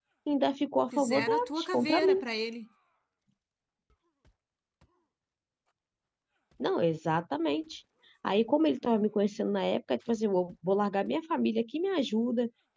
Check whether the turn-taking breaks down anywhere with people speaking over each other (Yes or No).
Yes